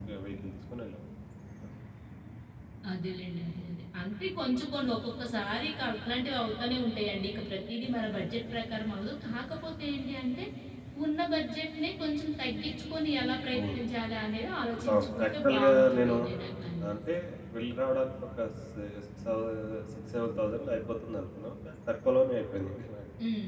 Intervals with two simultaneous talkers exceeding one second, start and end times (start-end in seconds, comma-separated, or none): 14.9-16.1